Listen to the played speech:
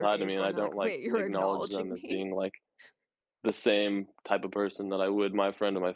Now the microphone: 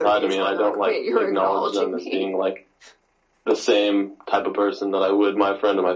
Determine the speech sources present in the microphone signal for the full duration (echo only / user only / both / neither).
echo only